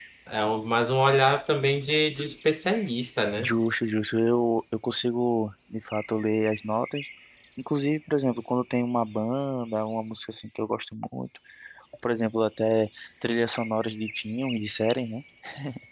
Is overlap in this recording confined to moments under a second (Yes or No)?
Yes